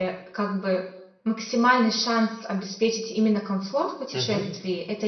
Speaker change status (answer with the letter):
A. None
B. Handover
A